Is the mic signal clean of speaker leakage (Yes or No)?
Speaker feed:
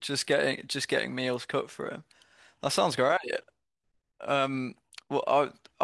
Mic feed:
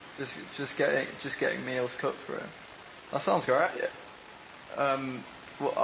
No